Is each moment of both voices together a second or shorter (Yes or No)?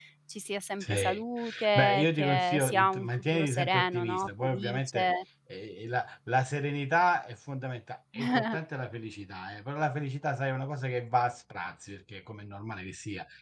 No